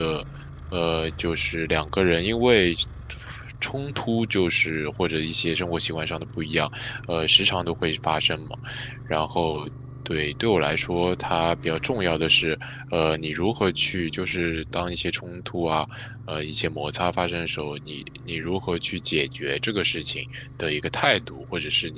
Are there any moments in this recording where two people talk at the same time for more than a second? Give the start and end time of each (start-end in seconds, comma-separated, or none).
none